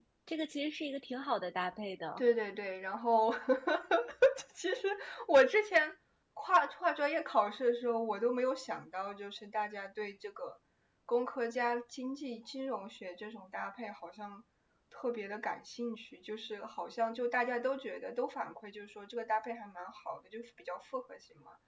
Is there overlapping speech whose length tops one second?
No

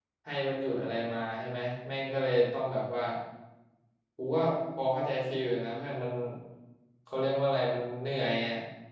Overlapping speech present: No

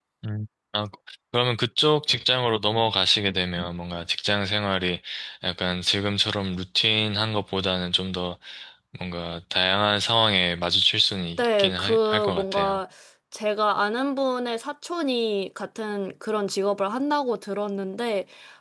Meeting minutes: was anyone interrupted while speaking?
Yes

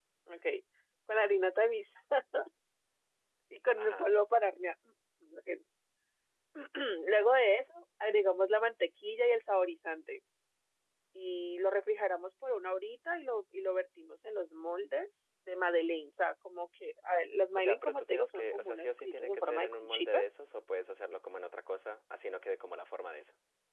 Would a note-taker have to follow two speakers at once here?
Yes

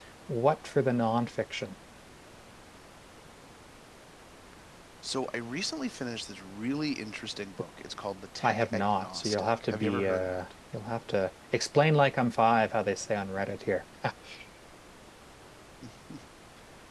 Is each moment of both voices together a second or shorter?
No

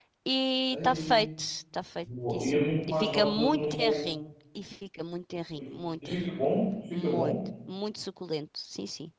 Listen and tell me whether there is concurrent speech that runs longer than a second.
Yes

